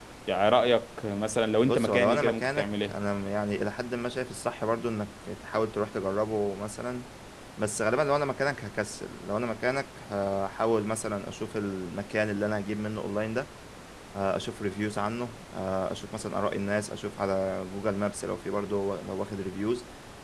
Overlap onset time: 1.6 s

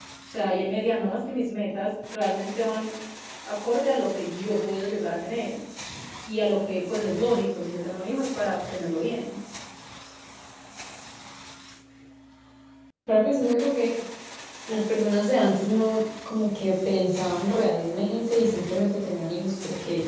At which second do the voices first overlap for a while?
none

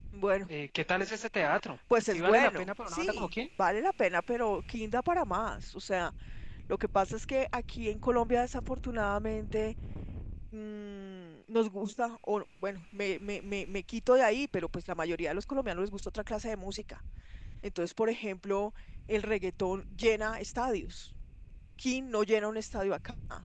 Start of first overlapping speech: 1.9 s

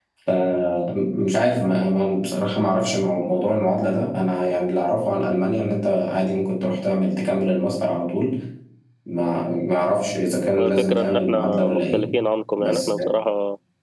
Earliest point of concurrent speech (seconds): 10.6 s

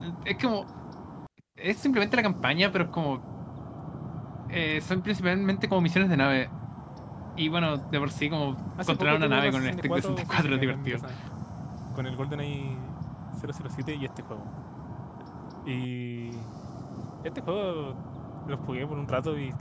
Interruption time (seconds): 8.8 s

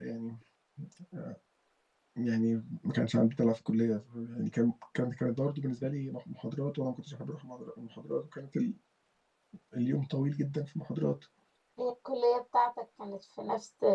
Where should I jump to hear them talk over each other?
none

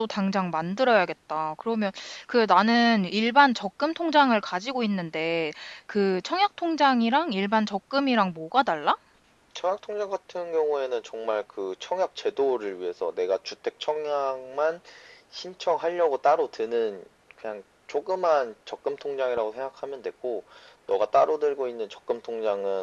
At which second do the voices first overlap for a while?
none

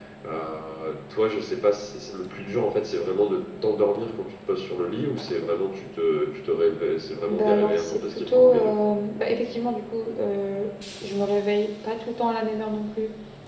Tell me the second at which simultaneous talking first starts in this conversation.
7.3 s

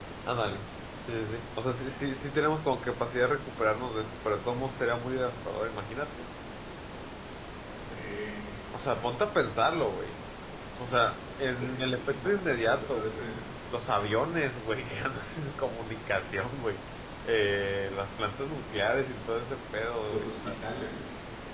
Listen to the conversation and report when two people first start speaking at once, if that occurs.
11.6 s

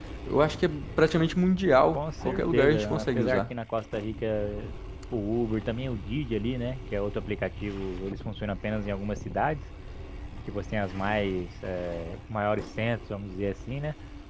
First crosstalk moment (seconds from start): 1.9 s

